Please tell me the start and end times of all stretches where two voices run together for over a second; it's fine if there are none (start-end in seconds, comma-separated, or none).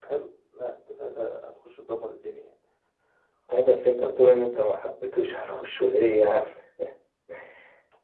none